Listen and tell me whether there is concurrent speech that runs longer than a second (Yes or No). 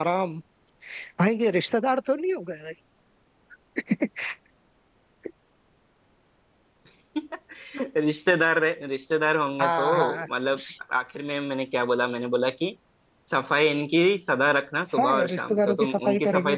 Yes